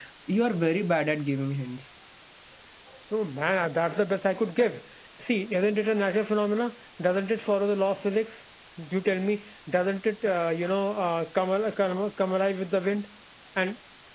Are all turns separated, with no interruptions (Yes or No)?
Yes